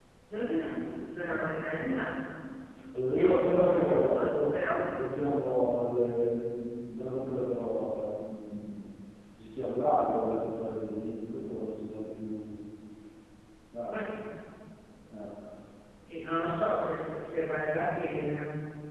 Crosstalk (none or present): present